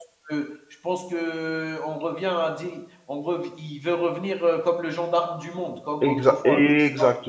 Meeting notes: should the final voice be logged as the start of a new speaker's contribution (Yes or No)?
Yes